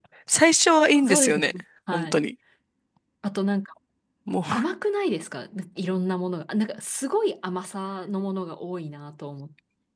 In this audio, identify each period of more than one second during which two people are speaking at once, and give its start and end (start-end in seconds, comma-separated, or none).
none